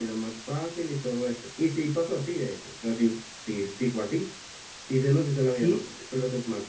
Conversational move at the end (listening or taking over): listening